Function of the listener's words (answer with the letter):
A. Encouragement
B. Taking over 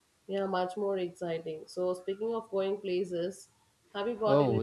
B